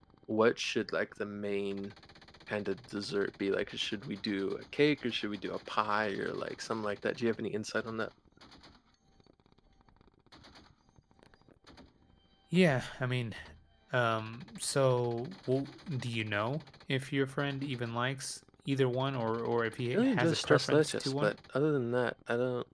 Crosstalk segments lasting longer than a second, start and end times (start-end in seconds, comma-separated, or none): 19.9-21.3